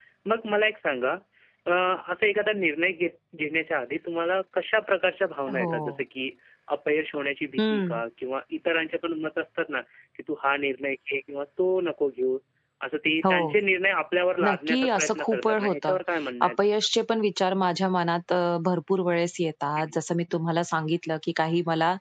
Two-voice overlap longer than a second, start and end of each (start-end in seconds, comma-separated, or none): 14.4-16.0